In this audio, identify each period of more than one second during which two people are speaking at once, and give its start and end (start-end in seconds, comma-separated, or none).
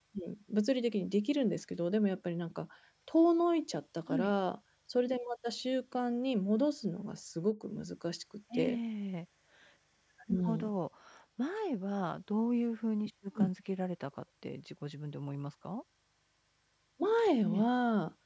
none